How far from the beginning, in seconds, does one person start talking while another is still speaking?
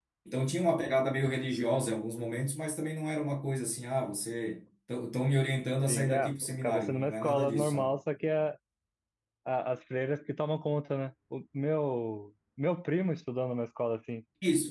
6 s

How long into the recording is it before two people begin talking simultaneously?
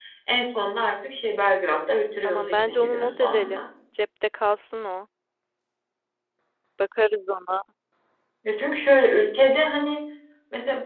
2 s

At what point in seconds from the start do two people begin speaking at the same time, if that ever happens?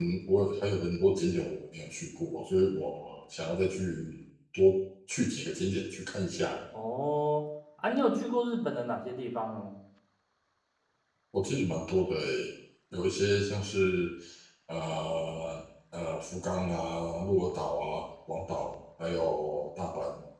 none

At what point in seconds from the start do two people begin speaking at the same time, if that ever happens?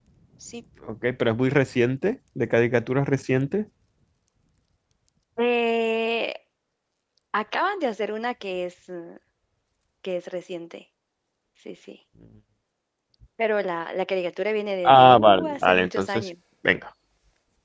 15 s

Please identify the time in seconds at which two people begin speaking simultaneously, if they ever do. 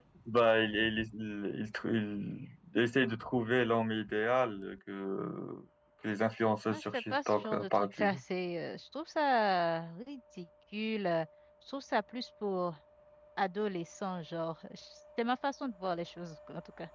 7 s

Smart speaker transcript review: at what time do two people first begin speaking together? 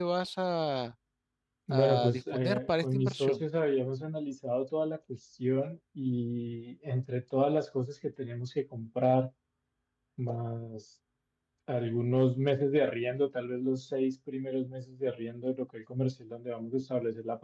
2 s

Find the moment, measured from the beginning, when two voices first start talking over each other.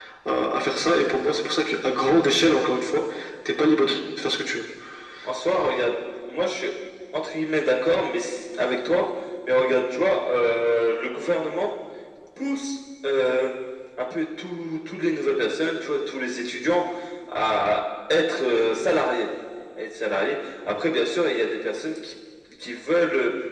none

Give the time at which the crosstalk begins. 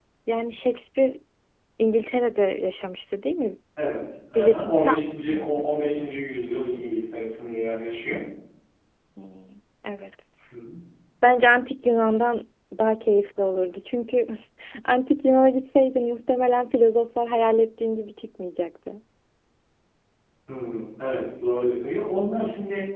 4 s

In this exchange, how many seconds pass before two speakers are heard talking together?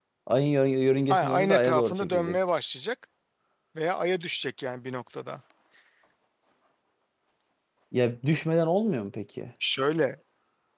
1 s

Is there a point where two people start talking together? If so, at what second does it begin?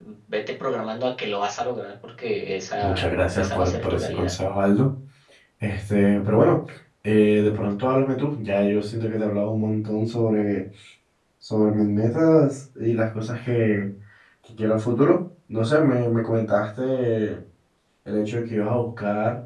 3 s

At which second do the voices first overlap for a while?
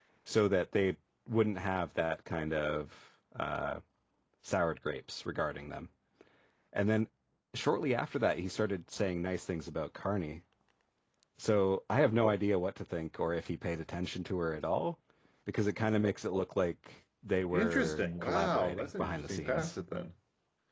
18 s

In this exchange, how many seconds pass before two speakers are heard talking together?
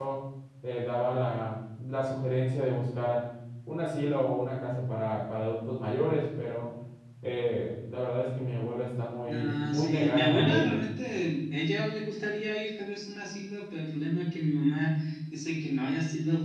9 s

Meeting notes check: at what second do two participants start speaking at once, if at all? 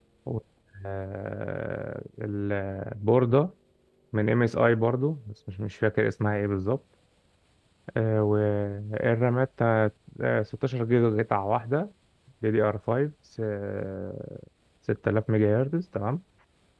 none

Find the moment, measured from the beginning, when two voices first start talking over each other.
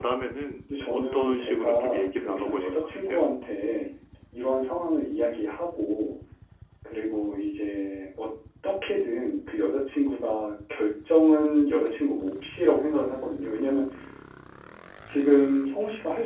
1 s

